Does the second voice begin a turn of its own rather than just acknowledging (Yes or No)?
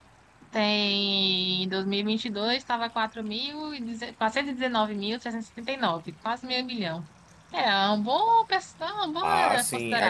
Yes